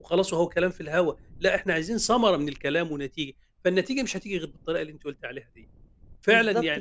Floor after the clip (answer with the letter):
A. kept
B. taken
B